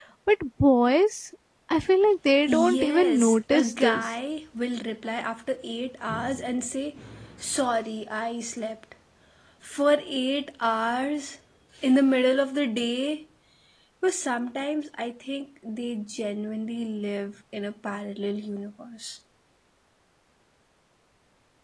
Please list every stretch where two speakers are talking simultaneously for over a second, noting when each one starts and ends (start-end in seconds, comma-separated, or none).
2.5-4.1